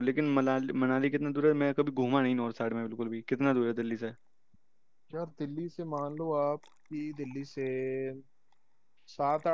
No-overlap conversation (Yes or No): Yes